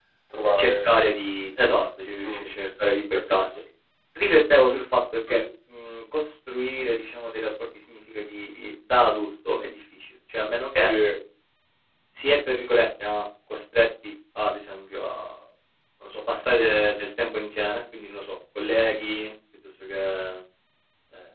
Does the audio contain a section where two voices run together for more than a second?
No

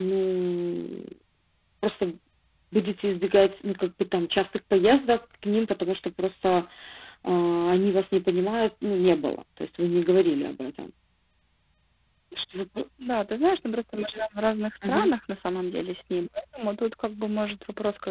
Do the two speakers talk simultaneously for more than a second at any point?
No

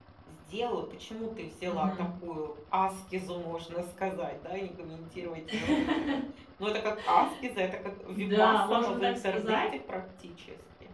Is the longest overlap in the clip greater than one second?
Yes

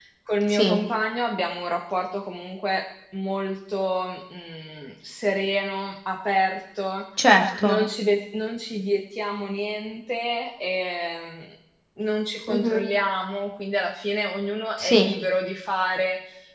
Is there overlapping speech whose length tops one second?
No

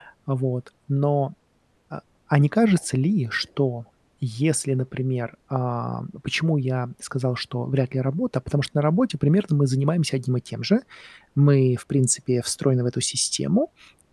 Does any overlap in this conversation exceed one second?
No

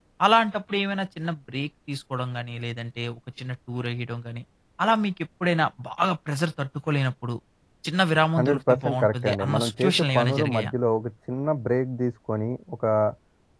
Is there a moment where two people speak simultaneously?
Yes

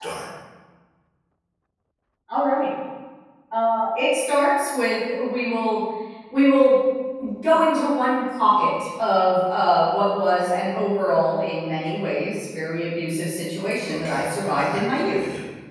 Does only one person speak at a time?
No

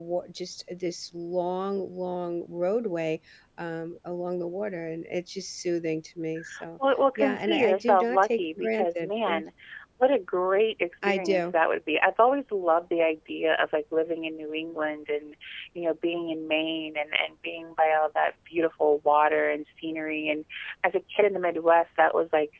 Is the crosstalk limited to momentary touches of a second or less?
No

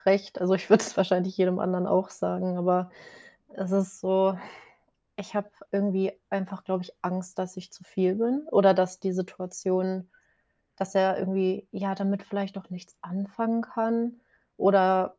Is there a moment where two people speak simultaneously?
No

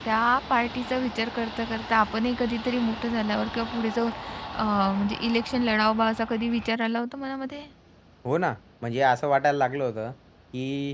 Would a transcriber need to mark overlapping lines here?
No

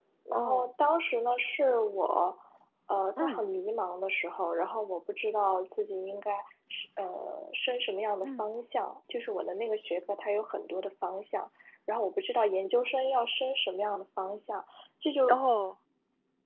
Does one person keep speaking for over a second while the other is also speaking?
No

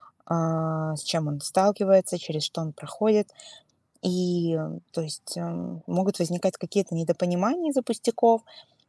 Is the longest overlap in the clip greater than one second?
No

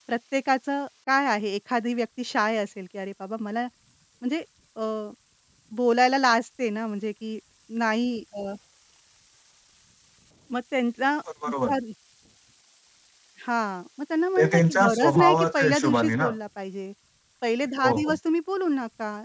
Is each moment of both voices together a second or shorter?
No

